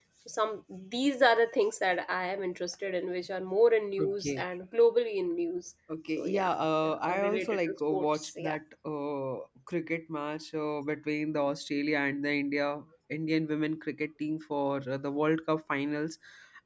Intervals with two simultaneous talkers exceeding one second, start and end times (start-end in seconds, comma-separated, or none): 6.2-8.6